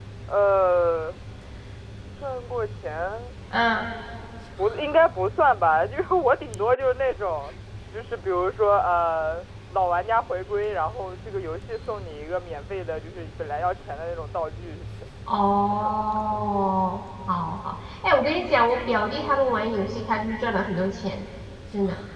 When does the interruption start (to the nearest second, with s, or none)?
none